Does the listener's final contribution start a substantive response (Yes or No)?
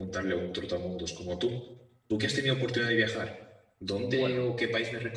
No